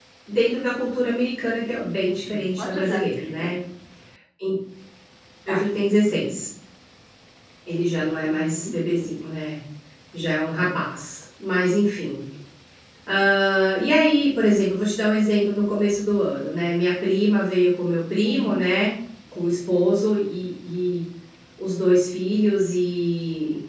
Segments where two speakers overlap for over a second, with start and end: 2.3-3.5

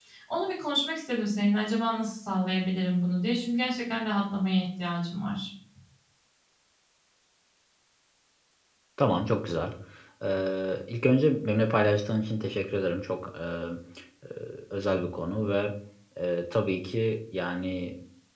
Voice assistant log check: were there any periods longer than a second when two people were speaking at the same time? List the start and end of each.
none

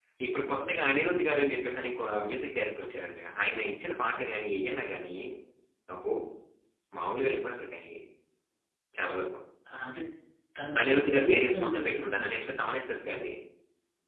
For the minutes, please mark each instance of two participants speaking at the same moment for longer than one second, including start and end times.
10.8-12.5

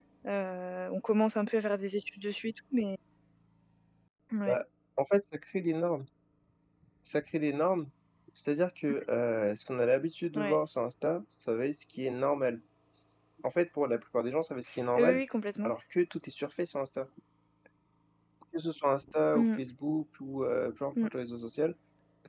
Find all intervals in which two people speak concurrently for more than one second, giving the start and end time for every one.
none

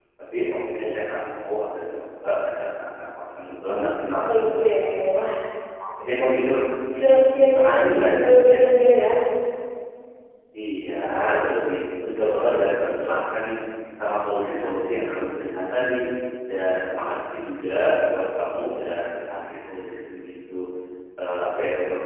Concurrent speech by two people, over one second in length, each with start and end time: none

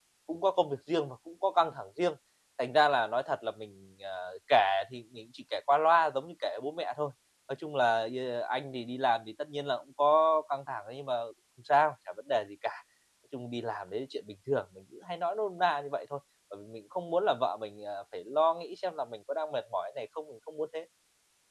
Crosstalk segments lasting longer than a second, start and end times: none

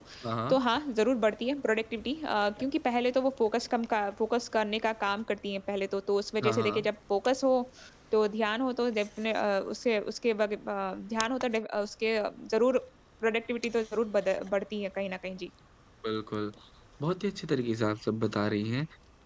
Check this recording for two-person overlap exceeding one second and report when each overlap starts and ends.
none

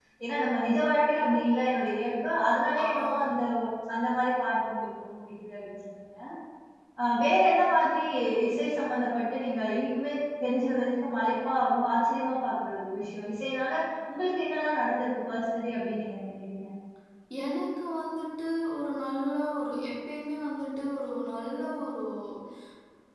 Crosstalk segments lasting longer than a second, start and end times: none

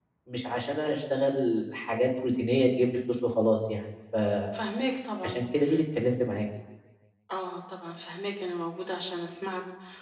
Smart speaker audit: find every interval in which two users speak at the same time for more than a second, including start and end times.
none

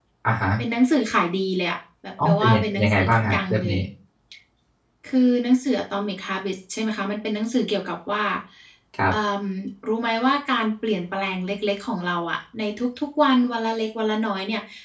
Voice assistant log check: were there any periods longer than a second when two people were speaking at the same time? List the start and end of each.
2.2-3.8

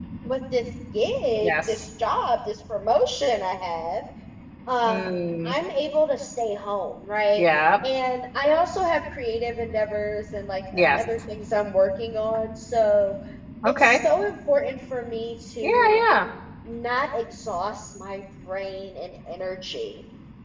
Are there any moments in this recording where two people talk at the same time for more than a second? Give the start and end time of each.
none

